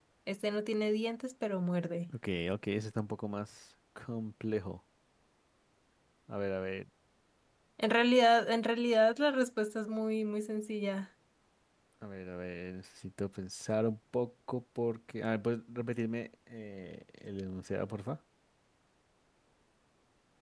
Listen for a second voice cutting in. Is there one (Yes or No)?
No